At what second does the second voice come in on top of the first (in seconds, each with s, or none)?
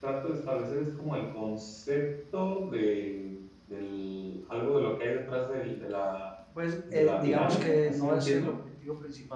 6.9 s